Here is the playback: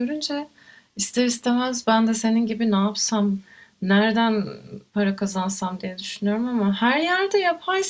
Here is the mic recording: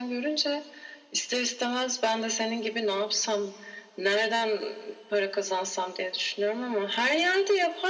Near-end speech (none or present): none